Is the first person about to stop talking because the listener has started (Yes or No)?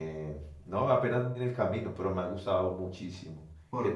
Yes